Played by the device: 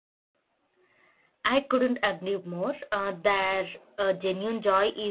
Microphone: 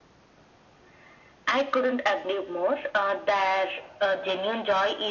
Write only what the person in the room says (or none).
none